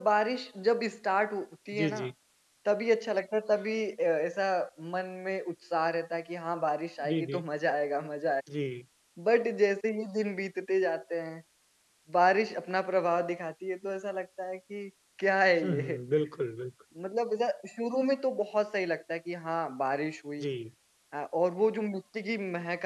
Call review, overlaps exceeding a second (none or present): none